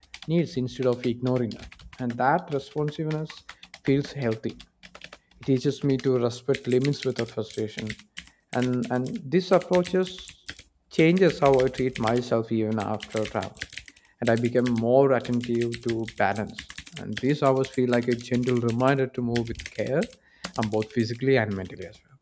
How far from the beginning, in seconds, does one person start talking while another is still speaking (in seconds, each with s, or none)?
none